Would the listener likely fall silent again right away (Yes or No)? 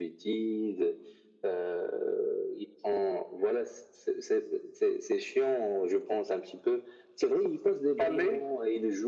Yes